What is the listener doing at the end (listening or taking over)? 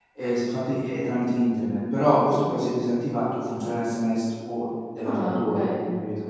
taking over